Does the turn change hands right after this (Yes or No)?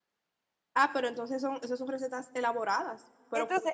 Yes